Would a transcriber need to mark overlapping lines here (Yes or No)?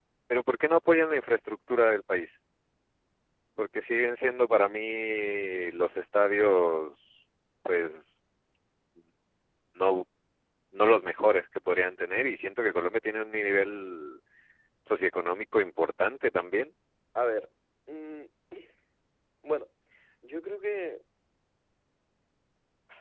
No